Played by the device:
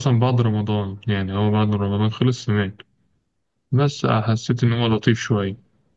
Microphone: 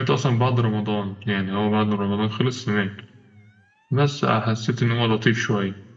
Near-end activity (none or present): none